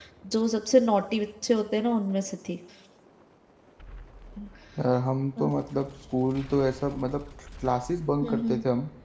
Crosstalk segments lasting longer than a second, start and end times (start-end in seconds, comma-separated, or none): none